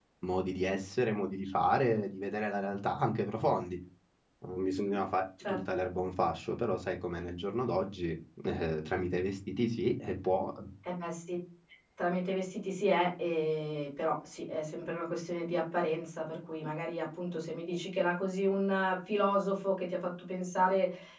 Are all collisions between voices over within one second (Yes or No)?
Yes